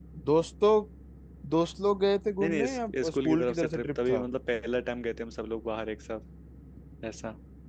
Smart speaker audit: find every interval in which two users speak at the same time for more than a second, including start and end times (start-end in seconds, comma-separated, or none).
2.4-4.2